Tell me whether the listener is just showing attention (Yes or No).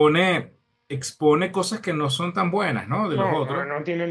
No